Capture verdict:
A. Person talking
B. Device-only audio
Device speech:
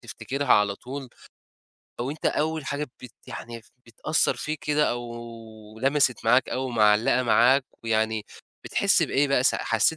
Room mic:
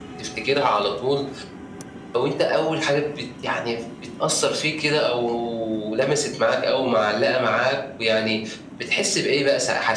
B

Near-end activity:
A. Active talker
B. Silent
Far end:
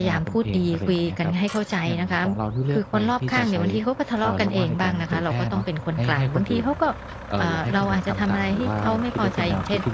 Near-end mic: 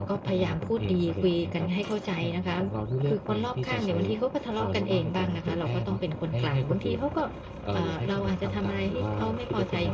B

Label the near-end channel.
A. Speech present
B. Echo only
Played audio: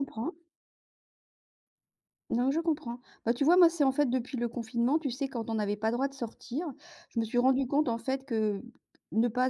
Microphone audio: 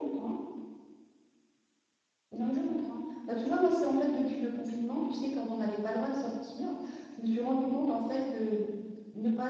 B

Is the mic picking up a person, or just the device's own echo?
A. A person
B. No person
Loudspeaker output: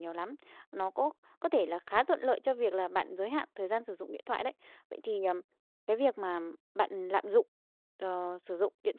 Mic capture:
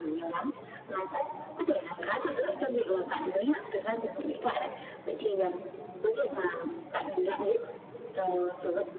B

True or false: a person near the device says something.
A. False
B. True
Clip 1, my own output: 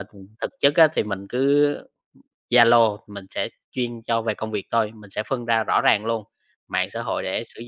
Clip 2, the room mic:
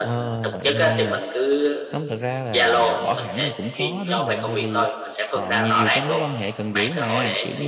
B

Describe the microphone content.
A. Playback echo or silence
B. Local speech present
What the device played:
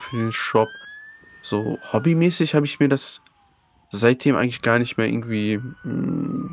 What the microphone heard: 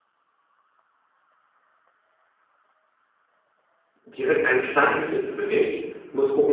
B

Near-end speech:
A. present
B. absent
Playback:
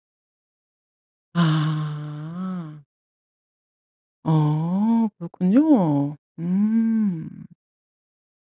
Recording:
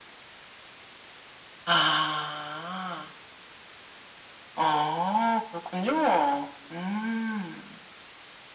B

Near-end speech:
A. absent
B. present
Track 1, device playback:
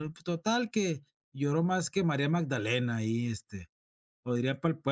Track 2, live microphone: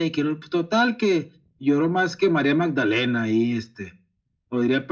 A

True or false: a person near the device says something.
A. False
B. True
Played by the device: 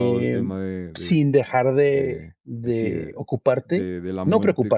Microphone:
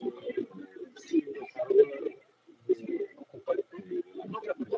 A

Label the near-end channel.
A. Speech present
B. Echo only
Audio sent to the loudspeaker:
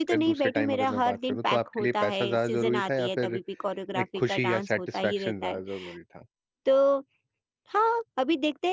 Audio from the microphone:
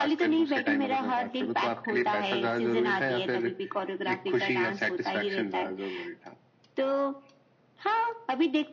B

